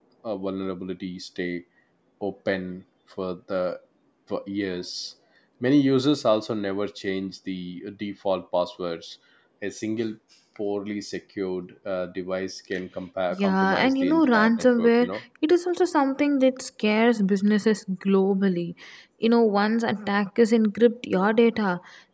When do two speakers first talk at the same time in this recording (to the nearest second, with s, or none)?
13 s